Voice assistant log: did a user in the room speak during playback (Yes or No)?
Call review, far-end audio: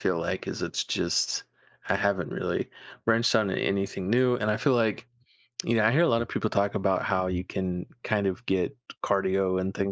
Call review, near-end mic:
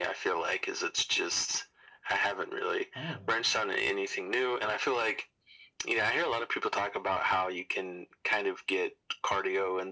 Yes